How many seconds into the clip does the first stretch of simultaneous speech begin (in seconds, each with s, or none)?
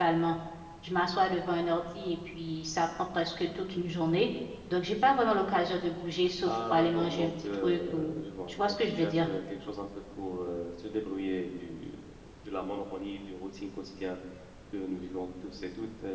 6.5 s